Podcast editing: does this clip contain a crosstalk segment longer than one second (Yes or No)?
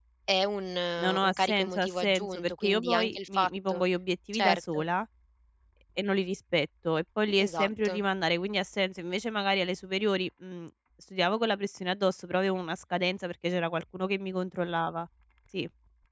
Yes